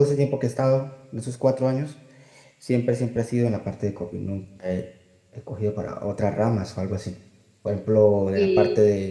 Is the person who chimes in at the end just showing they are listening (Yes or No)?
Yes